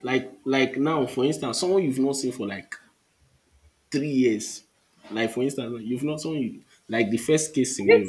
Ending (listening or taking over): taking over